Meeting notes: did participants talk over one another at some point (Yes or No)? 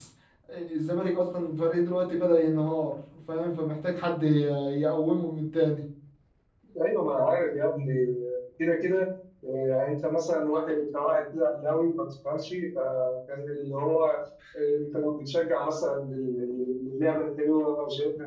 No